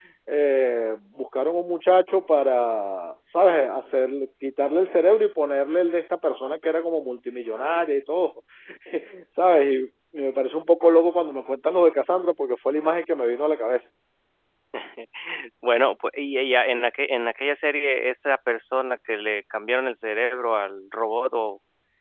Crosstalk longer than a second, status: none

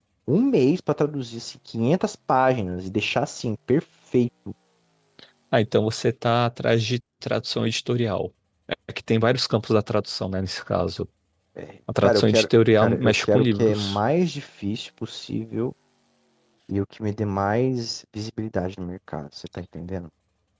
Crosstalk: present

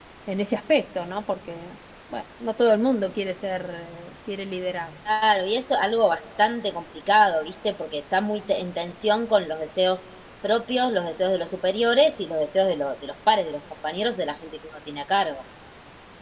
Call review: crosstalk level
none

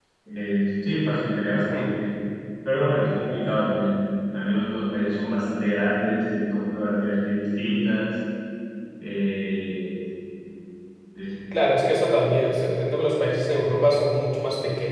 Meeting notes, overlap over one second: none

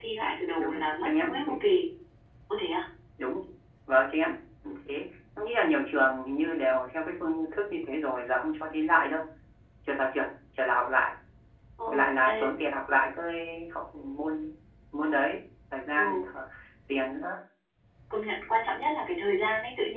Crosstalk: present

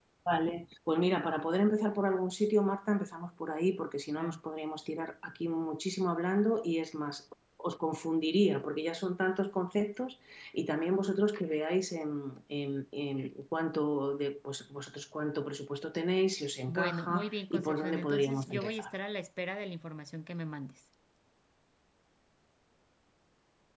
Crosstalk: present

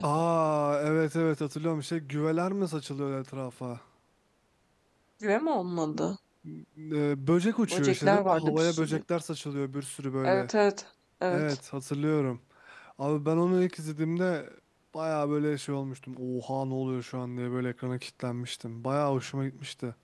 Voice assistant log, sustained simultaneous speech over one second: present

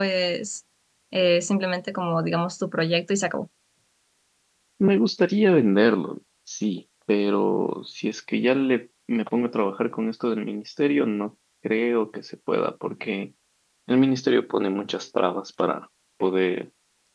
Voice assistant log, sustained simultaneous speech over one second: none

